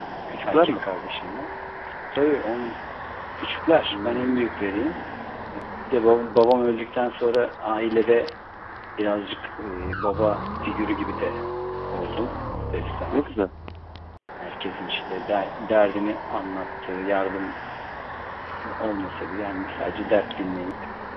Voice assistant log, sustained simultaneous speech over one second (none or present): none